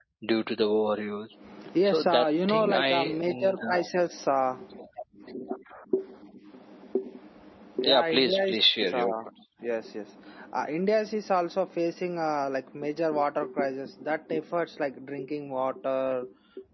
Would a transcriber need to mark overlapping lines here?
Yes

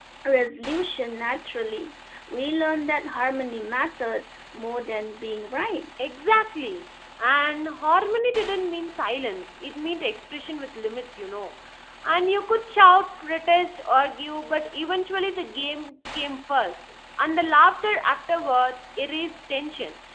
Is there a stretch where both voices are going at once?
No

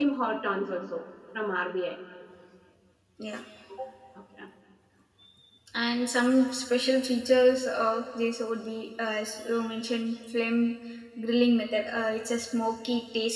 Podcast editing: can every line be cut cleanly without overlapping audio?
Yes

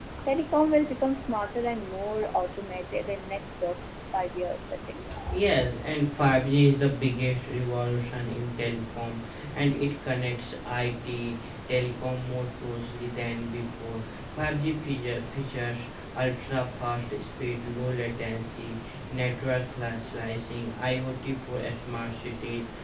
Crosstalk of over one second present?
No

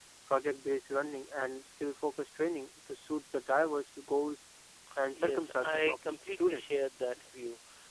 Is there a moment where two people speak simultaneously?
Yes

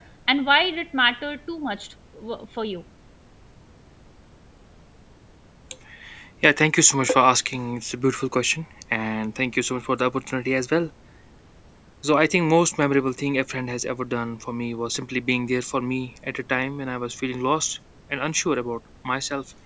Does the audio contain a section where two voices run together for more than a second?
No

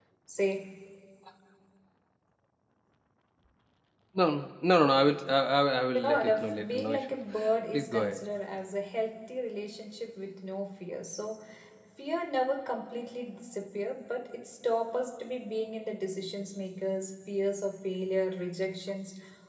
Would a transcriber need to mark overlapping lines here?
Yes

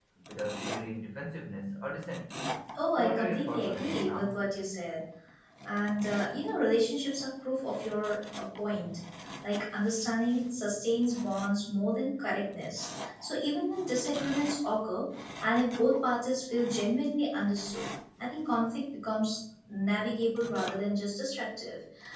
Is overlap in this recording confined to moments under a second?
No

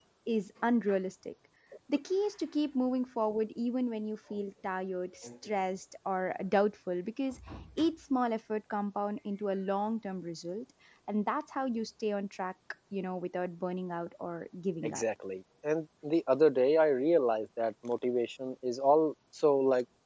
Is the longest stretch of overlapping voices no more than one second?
Yes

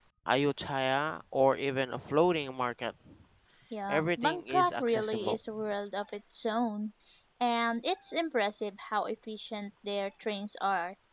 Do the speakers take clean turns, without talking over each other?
No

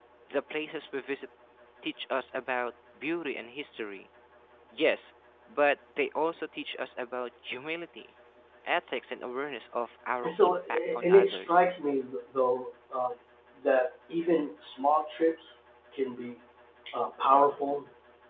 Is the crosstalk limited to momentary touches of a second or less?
No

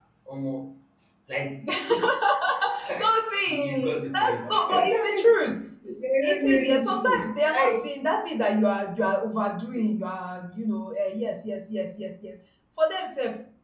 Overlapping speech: Yes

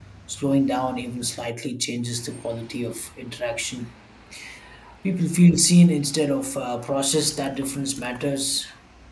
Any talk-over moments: No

